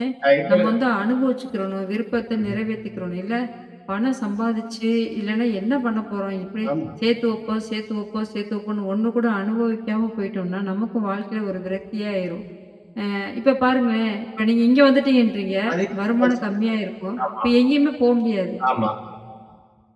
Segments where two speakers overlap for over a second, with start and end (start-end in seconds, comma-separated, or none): none